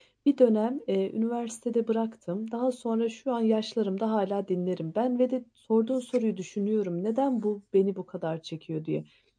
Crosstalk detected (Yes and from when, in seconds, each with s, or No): No